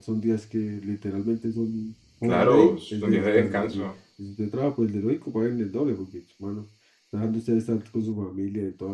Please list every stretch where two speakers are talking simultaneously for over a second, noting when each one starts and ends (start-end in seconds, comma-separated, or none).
2.2-3.9